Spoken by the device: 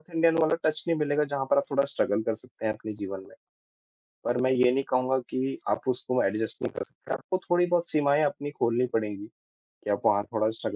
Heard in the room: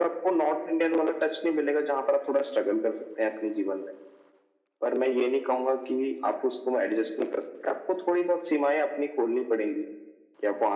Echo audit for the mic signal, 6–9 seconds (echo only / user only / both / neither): echo only